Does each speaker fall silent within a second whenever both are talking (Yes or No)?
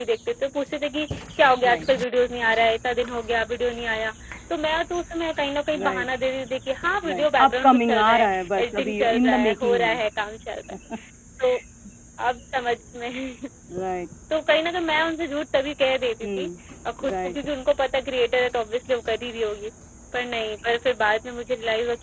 No